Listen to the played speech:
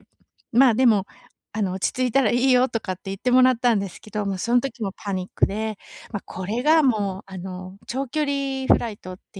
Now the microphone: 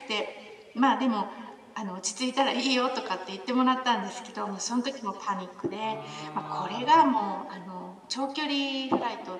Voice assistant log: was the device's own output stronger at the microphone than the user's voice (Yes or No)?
Yes